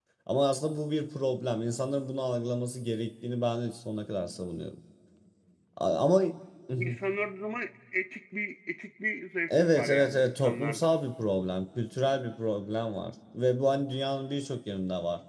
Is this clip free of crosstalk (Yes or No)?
No